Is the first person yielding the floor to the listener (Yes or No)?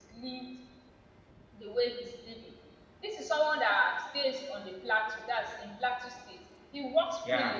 No